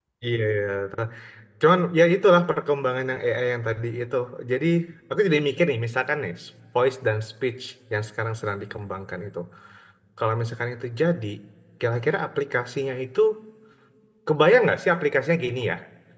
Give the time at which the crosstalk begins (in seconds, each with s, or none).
none